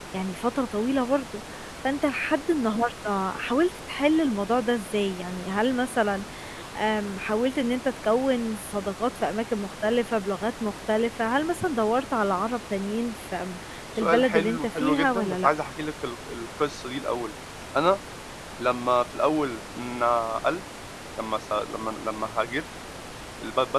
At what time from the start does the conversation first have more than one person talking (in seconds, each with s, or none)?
14.0 s